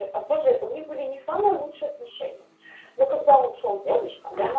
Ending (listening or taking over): listening